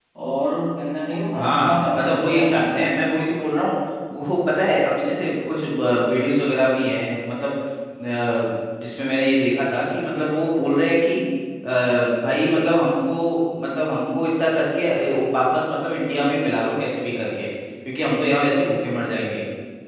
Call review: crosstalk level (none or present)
present